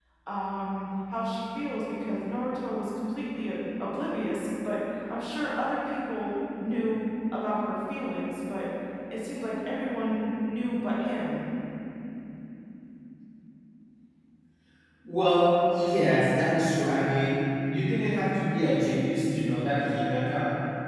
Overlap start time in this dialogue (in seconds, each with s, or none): none